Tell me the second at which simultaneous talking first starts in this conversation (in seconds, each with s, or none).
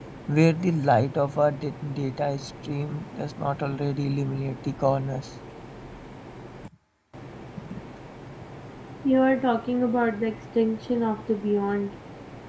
none